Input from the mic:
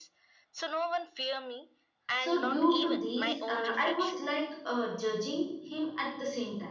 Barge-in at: 2 s

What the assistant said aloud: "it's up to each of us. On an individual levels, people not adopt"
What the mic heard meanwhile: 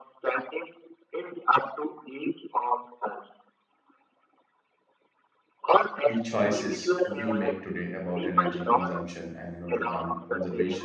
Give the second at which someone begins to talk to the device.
6 s

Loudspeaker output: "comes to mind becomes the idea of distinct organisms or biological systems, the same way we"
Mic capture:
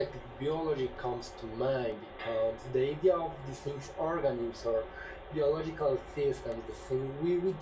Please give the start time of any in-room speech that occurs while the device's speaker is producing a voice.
none

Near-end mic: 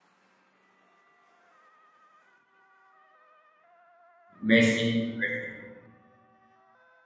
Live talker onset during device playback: 4 s

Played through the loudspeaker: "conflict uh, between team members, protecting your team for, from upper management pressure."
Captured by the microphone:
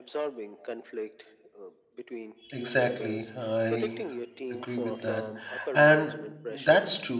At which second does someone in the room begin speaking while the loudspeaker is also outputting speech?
3 s

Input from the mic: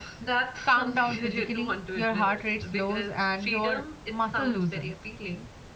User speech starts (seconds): none

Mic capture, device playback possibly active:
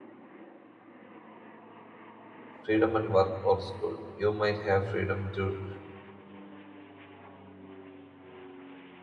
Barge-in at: 3 s

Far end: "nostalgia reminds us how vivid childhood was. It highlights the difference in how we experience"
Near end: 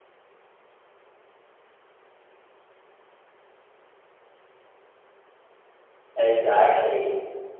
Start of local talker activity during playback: 6 s

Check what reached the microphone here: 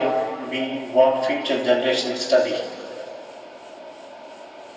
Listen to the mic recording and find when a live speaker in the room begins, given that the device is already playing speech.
none

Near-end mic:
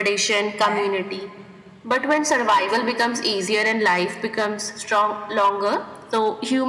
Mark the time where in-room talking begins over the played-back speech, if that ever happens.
1 s

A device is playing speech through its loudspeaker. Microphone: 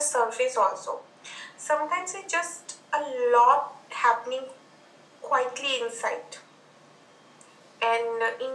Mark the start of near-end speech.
none

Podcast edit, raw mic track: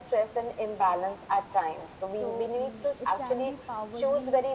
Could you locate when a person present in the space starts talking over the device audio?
2 s

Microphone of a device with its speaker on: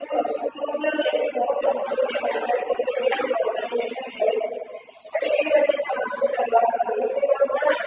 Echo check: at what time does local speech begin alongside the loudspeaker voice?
none

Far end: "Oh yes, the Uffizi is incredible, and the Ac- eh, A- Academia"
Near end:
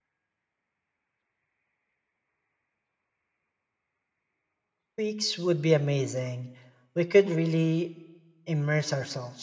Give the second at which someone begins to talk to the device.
5 s

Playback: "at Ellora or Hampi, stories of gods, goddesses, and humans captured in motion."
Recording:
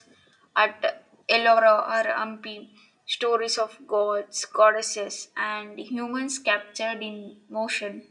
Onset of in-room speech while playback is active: none

